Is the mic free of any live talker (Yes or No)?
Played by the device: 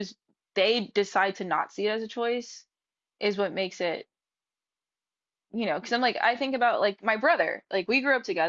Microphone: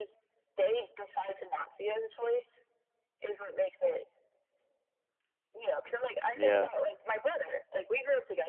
No